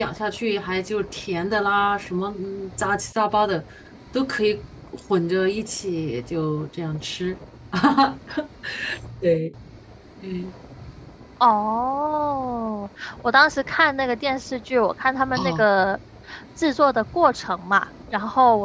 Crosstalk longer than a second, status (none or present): none